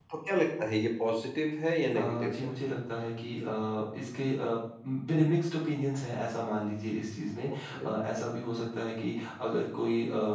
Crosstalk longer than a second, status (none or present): none